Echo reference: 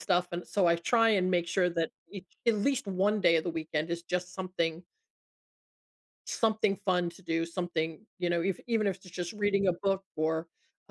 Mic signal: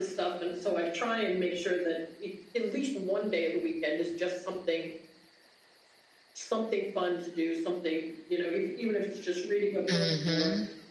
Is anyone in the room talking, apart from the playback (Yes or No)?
Yes